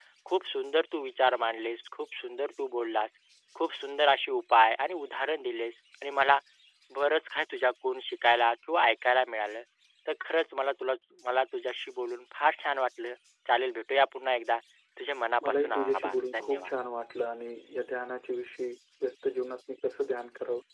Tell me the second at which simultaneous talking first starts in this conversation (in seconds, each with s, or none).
15.4 s